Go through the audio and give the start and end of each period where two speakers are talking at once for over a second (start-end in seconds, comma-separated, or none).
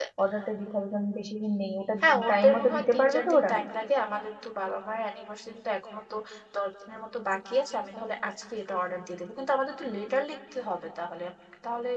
2.3-3.5